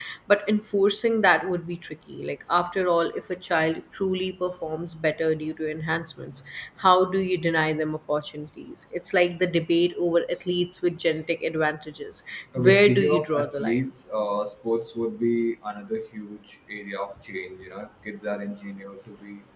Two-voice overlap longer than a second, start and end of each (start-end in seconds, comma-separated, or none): 12.6-13.8